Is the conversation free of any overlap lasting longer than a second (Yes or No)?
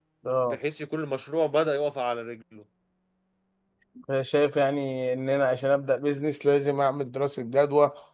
Yes